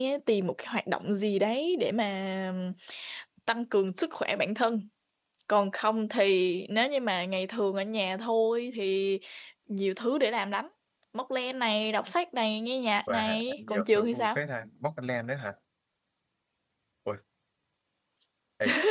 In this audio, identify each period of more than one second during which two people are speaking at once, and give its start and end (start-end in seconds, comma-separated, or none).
13.1-14.4